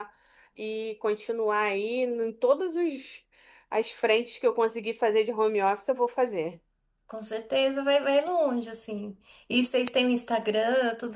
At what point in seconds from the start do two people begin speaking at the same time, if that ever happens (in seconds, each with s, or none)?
none